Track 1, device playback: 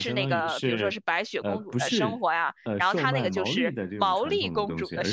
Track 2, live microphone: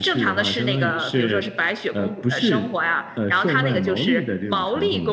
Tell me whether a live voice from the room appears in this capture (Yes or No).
No